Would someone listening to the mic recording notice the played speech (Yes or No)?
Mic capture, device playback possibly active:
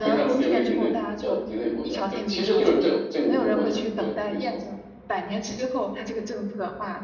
Yes